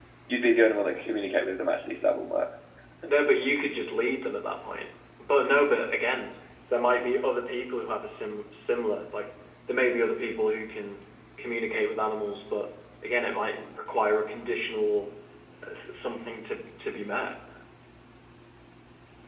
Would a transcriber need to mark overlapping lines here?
No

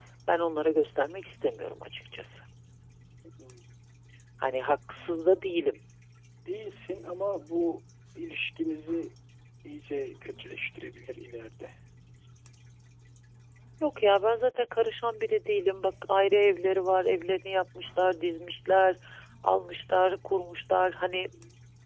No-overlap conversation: Yes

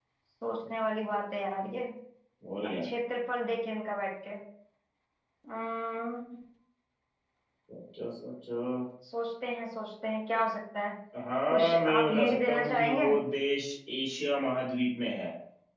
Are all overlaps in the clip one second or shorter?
No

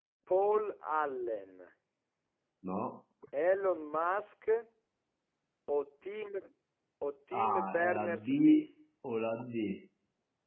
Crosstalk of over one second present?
Yes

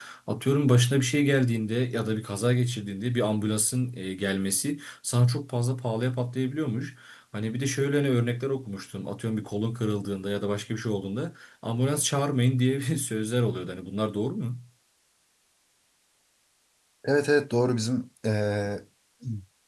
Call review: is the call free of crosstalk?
Yes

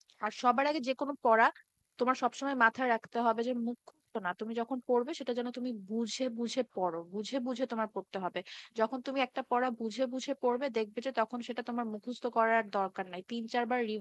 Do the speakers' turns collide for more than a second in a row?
No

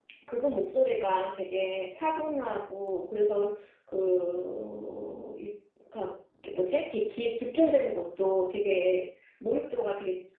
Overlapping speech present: No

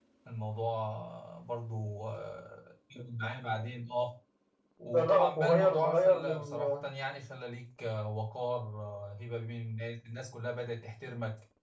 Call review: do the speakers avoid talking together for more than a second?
No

